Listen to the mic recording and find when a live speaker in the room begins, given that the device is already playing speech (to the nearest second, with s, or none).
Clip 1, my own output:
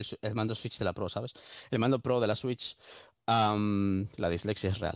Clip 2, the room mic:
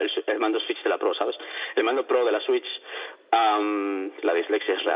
none